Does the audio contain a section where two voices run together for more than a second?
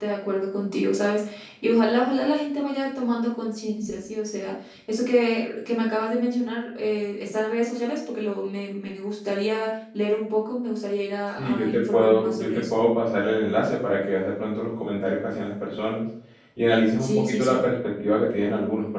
Yes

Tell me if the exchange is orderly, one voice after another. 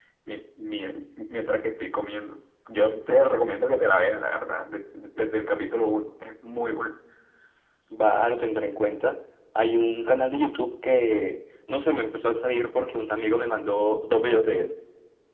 Yes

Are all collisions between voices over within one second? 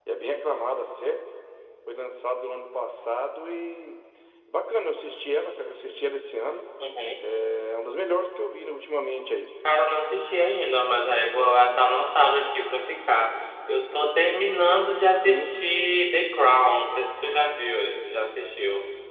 Yes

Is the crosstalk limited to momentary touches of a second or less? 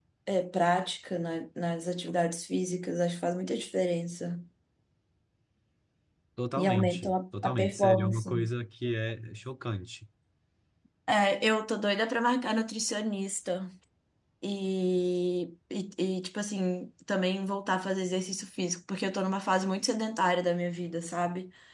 No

